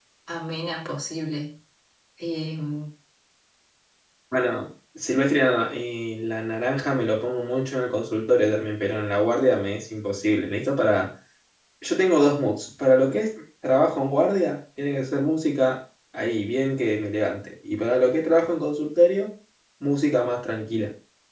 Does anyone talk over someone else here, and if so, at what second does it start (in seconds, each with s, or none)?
none